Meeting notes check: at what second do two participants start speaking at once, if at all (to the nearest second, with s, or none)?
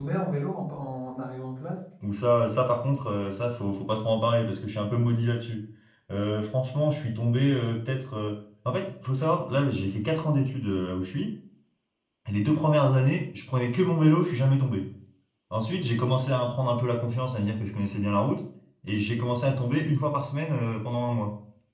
none